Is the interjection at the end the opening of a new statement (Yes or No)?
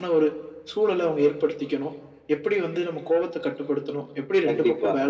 No